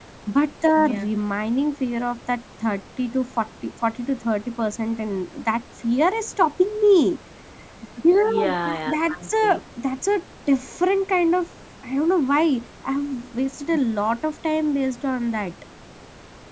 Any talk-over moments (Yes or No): Yes